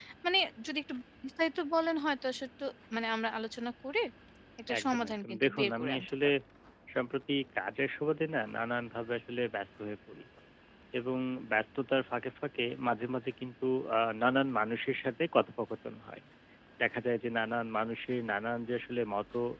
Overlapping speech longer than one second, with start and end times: 4.8-6.3

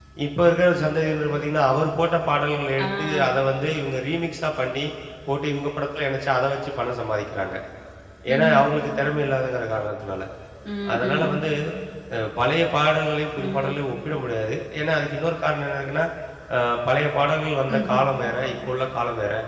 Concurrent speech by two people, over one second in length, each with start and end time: none

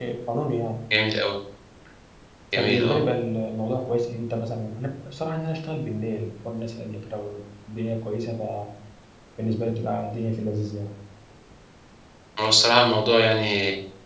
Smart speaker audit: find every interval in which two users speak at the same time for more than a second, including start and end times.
none

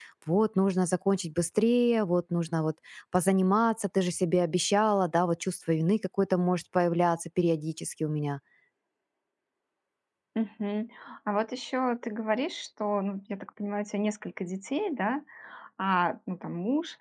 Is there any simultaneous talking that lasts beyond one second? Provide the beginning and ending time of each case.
none

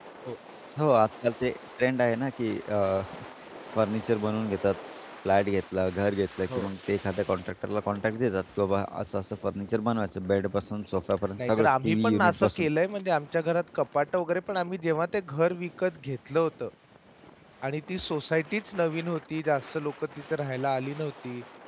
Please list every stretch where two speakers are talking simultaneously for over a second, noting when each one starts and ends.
11.4-12.7

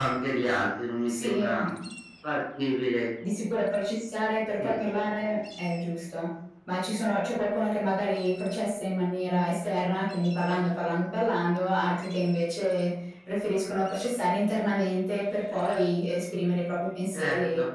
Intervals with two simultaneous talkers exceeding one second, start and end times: none

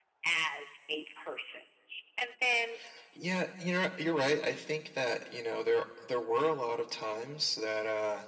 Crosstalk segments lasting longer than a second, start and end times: none

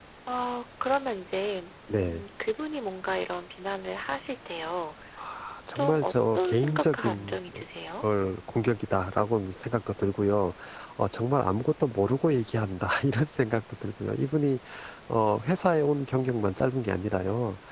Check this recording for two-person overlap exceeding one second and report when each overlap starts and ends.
5.8-7.3

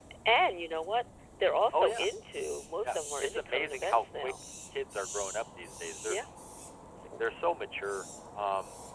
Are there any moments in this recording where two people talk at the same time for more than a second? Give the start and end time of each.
2.9-4.3

